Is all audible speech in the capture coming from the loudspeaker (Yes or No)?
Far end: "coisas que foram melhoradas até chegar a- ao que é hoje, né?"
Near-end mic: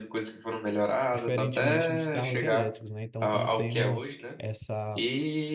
No